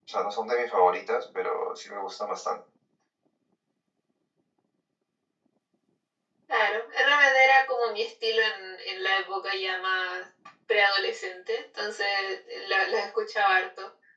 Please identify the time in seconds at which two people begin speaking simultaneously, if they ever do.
none

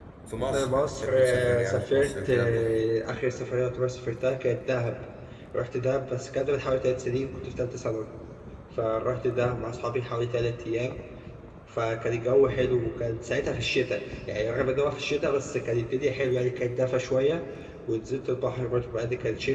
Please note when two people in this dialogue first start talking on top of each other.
1 s

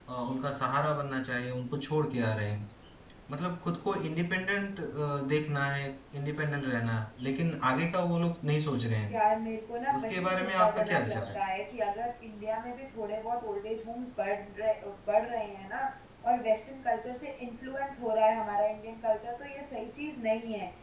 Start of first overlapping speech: 10 s

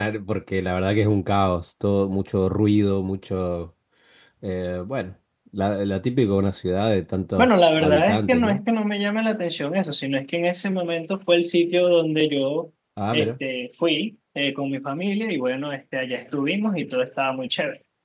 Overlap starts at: 7 s

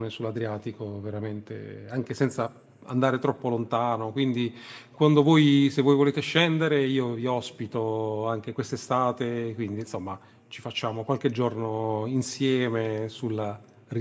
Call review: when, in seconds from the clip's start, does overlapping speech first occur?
none

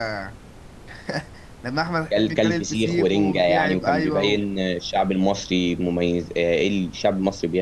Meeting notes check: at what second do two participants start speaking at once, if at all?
2 s

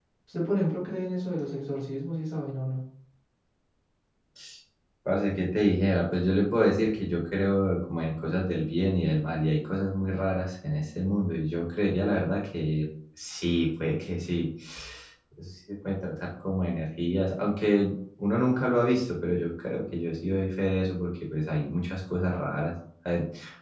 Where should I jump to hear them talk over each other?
none

